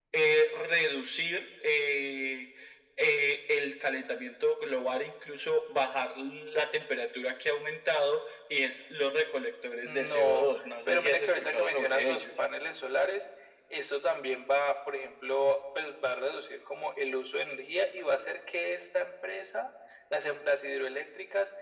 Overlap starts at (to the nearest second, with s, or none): 10 s